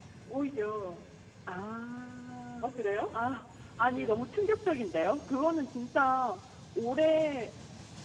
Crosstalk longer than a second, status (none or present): none